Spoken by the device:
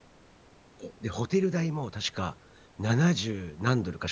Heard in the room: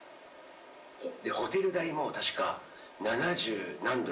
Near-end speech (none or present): none